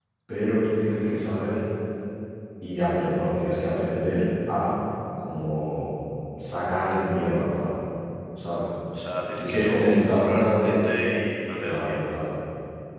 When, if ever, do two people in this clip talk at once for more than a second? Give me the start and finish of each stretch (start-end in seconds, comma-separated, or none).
9.4-10.7